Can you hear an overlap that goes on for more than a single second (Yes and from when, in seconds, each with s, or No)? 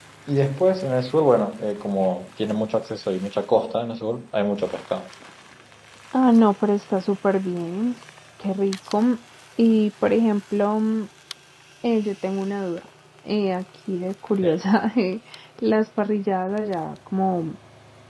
No